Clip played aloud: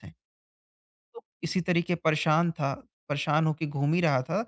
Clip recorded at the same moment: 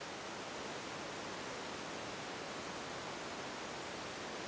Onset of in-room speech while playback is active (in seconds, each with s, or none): none